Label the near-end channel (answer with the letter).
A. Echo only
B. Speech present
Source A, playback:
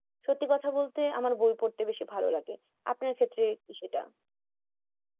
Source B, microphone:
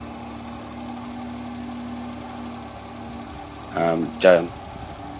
B